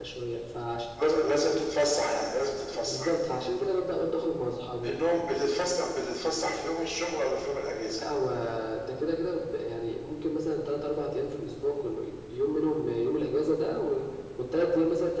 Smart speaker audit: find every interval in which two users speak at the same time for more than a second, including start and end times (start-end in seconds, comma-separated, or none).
none